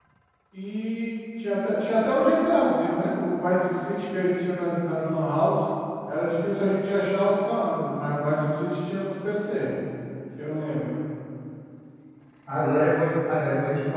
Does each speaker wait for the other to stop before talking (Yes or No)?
Yes